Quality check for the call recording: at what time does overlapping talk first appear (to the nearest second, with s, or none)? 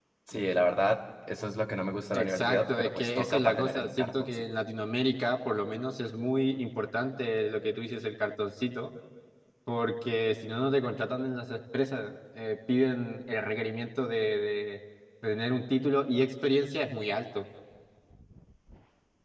2 s